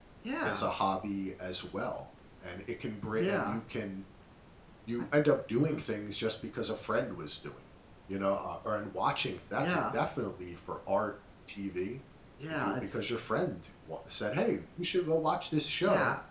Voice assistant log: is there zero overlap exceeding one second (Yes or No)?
Yes